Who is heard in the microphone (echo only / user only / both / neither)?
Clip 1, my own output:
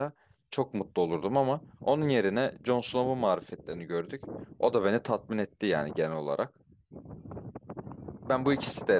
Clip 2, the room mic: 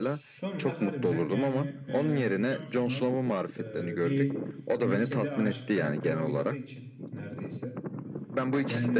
both